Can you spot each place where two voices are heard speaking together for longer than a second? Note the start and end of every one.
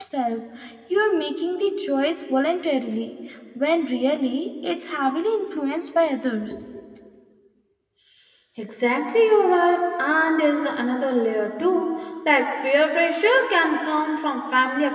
none

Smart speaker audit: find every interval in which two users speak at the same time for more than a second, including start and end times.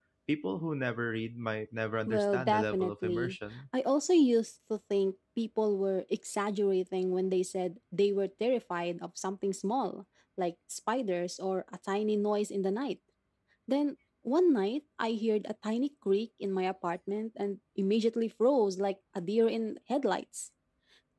2.1-3.4

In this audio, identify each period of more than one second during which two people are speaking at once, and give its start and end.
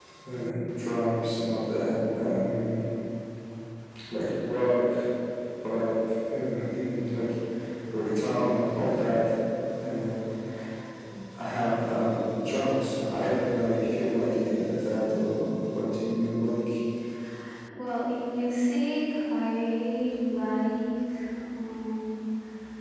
none

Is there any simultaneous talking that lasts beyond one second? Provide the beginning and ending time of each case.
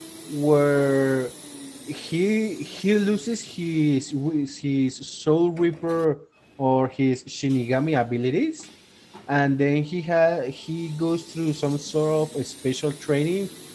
none

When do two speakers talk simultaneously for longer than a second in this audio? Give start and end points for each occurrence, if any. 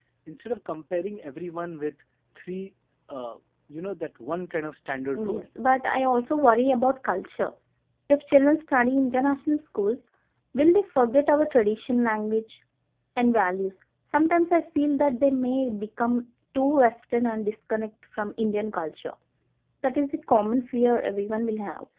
none

